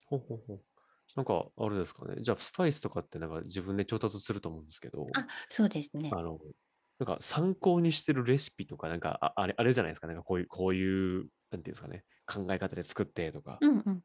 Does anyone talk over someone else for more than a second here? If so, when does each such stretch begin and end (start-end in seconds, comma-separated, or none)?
none